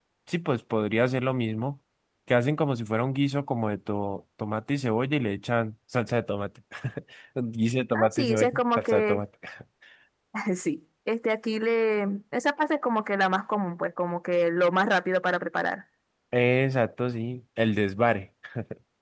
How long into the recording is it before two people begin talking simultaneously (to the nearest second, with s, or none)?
8 s